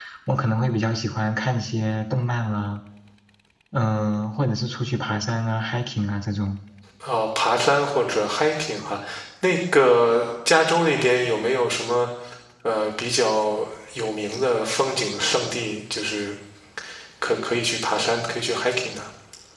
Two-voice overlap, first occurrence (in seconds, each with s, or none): none